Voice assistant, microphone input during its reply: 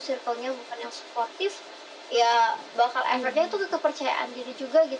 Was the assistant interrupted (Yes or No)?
Yes